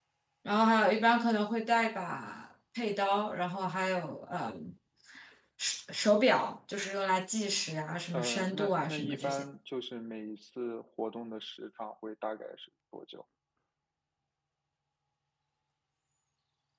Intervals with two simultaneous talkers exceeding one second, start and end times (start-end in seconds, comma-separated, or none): 8.1-9.4